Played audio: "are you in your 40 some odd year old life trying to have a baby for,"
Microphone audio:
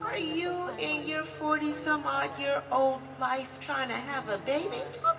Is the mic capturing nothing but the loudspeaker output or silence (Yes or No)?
No